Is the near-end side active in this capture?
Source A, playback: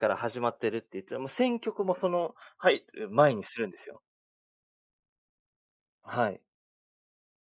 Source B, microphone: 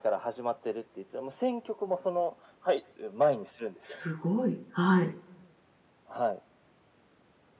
Yes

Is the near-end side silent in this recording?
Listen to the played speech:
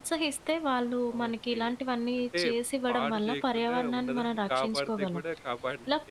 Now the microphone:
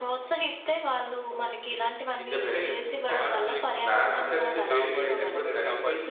No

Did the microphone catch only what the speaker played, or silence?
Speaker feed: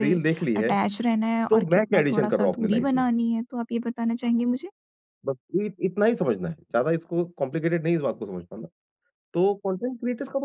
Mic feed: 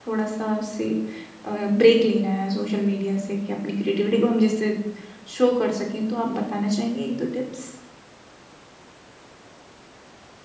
No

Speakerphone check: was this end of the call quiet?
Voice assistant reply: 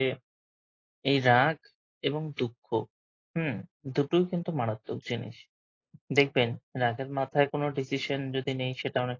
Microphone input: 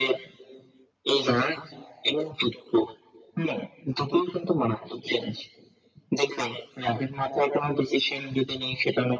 Yes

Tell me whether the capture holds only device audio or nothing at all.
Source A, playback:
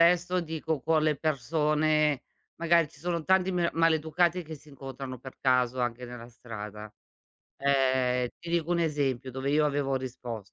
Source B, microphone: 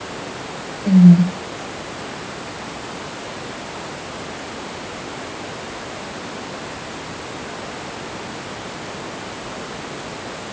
No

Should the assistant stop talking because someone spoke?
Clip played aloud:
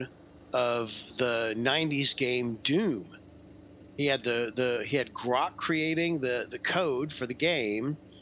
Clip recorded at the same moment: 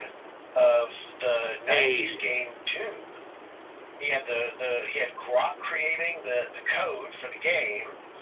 Yes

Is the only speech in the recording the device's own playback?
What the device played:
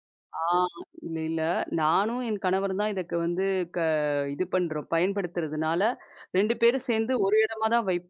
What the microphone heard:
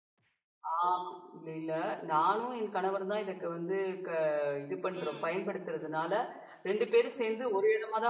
No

